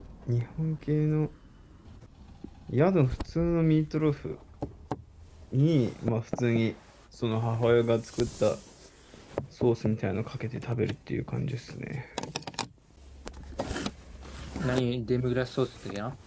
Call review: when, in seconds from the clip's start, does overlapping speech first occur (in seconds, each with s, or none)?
none